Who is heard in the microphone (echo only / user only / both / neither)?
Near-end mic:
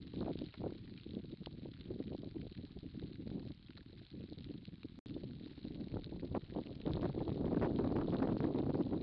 neither